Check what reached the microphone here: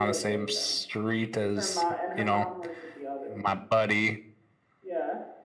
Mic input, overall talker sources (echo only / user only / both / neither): both